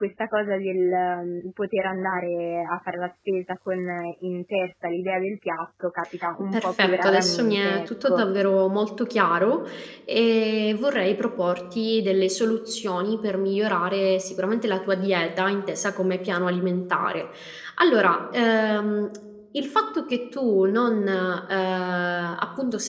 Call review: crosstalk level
present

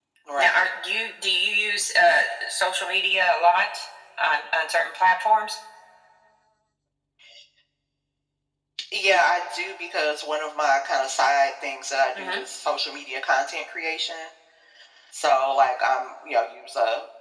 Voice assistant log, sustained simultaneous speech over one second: none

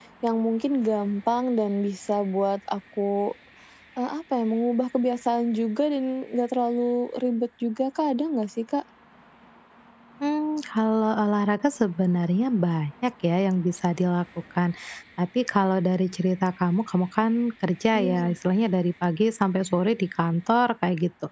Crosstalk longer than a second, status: none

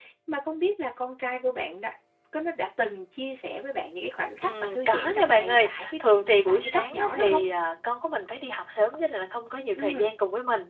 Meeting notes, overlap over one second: present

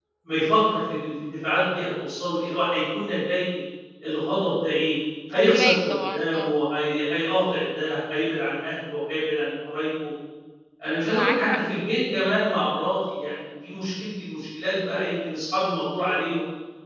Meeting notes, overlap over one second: present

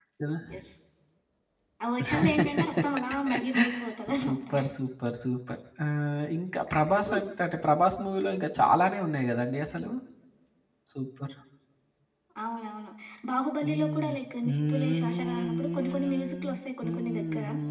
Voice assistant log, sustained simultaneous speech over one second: present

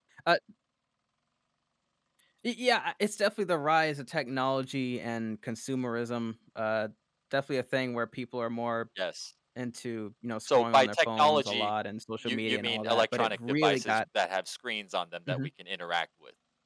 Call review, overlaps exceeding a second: present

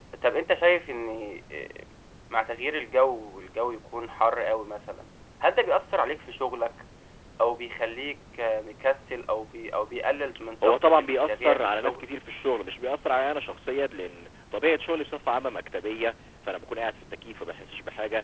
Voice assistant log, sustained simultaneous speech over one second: present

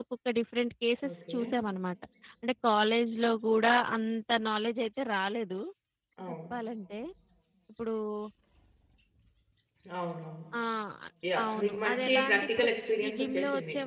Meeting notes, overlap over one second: present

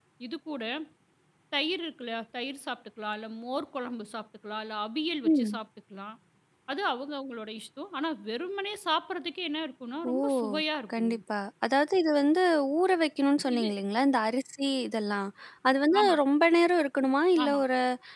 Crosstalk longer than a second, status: none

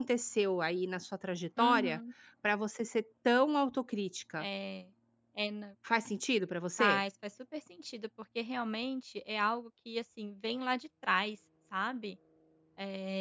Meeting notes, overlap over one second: none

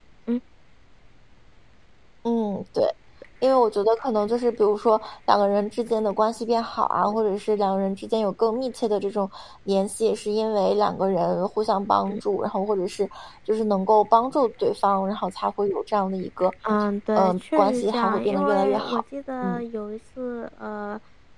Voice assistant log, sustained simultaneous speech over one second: present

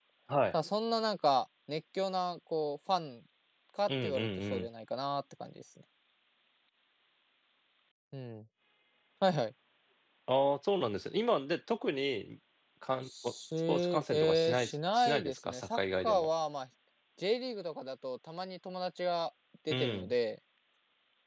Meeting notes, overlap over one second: present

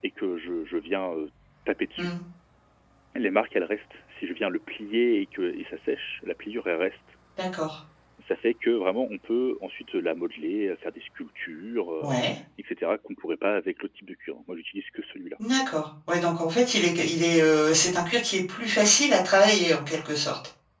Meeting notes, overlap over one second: none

